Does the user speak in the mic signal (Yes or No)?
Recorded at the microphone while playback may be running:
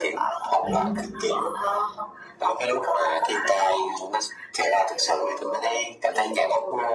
Yes